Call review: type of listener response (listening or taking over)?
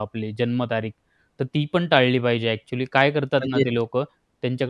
listening